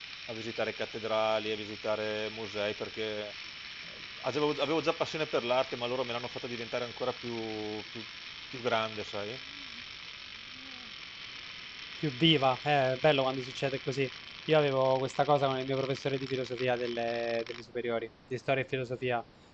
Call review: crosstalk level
none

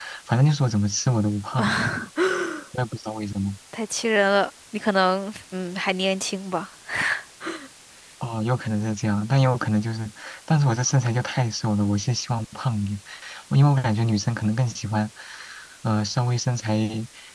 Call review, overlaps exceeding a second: none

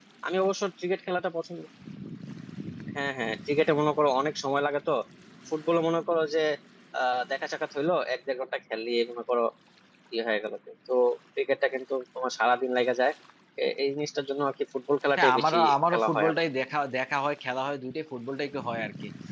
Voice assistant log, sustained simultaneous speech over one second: present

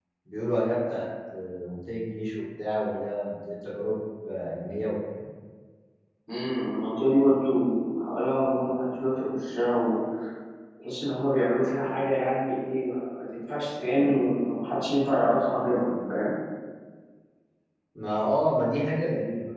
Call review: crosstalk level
none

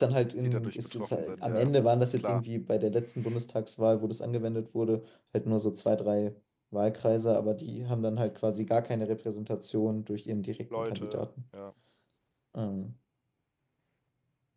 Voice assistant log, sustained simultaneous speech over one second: present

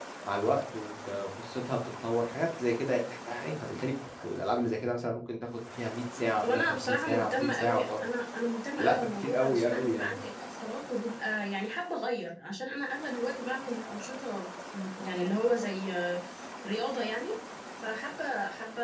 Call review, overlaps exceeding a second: present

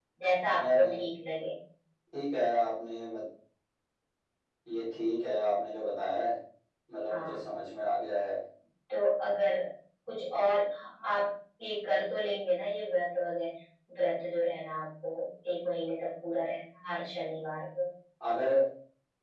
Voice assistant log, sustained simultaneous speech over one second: none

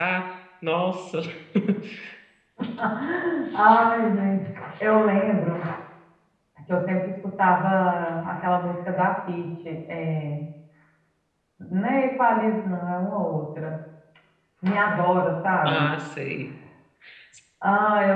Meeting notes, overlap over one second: none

